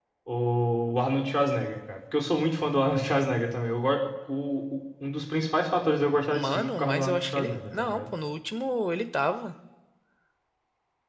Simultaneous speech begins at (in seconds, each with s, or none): 6.3 s